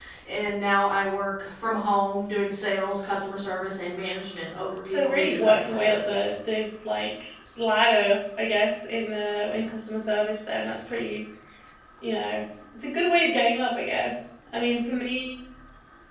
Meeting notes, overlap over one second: present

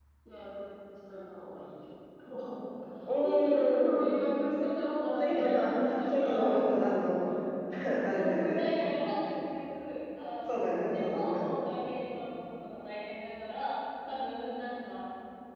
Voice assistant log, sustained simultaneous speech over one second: present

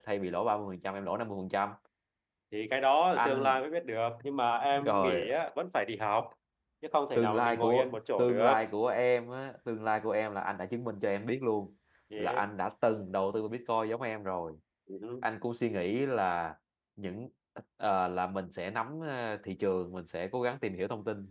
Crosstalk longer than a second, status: present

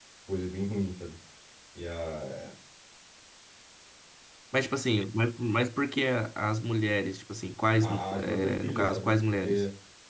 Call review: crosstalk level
present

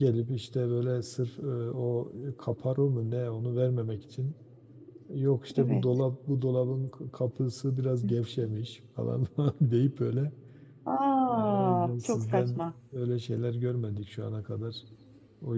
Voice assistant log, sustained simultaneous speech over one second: present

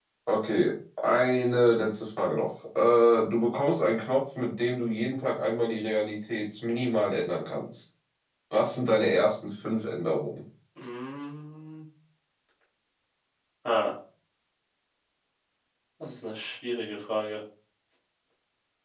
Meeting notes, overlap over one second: none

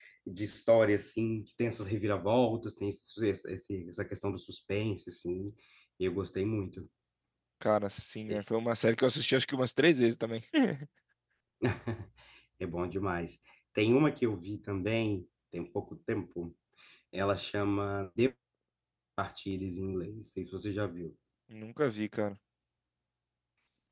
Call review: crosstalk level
none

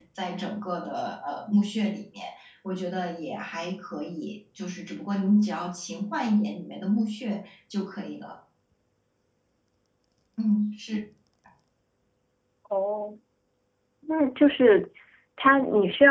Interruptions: none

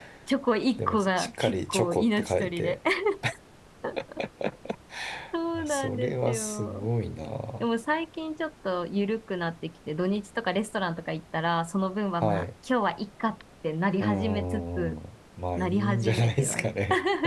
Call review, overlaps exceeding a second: present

